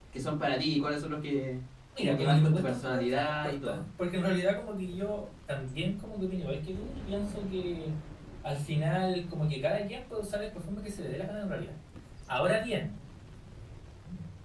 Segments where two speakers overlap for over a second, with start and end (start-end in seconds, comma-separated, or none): 2.0-3.8